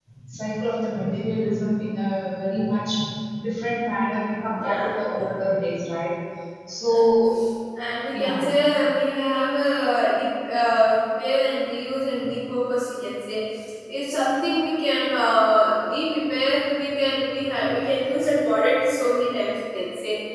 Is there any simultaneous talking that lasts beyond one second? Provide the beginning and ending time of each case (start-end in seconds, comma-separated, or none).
none